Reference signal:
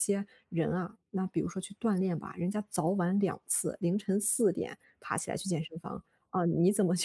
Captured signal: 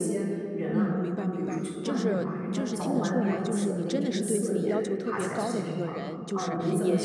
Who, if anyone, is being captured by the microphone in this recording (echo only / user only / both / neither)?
both